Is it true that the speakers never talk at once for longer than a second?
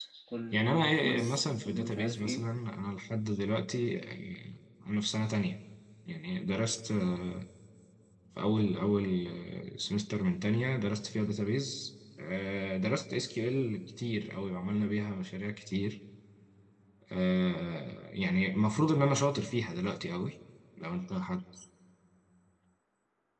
No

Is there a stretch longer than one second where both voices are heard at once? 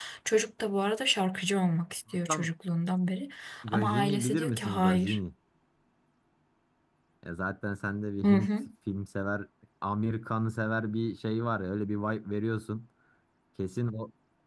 Yes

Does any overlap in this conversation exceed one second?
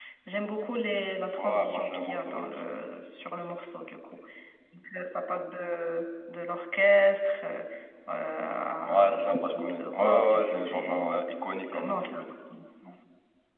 Yes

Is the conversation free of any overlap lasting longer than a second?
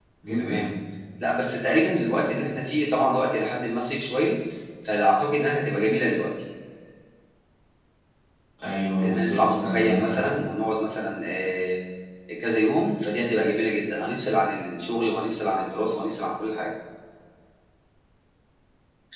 No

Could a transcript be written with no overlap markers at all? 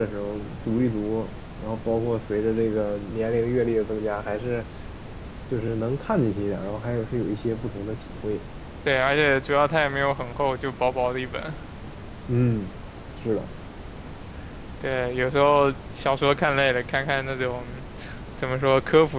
Yes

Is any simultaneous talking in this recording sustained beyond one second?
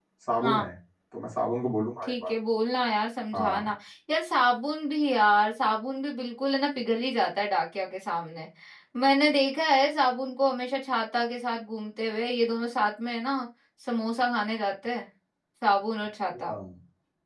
No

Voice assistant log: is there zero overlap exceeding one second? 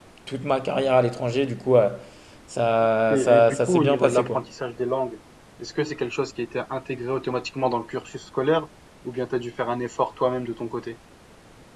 No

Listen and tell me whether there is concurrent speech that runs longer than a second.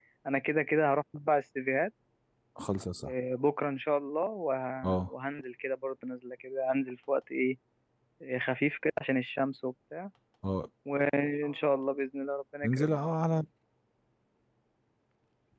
No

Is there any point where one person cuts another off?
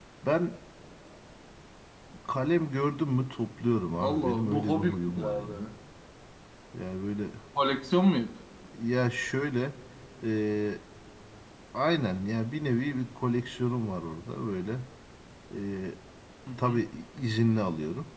Yes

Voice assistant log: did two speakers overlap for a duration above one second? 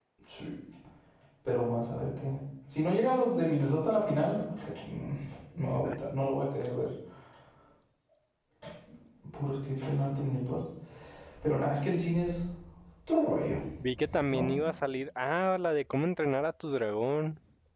No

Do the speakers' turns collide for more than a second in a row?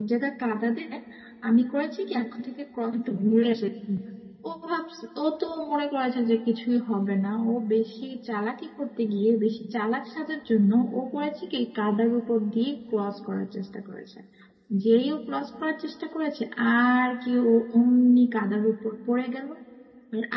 No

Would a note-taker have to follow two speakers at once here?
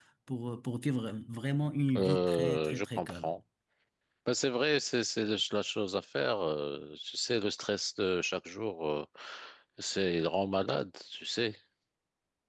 Yes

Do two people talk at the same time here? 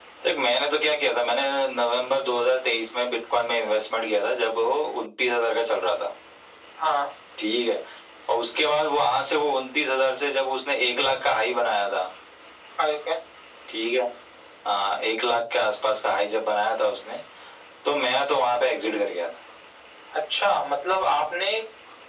No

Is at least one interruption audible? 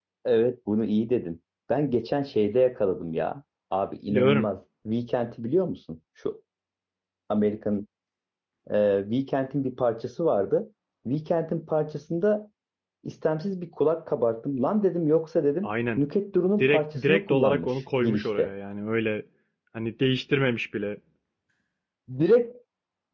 Yes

